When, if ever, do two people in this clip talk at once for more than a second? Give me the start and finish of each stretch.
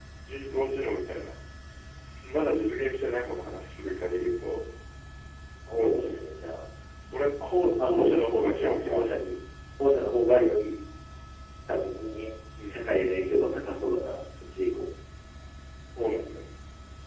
7.8-9.1

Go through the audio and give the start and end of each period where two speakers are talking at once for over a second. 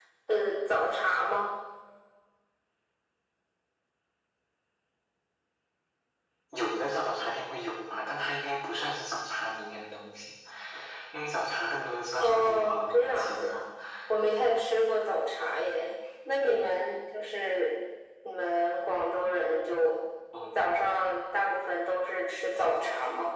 12.2-13.6

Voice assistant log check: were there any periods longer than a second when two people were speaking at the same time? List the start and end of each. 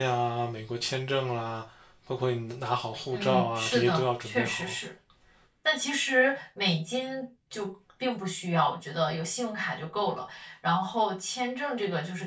3.1-4.8

